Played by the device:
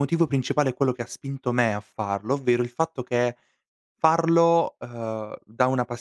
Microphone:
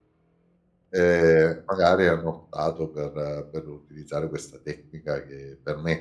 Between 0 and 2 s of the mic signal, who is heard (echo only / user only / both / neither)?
user only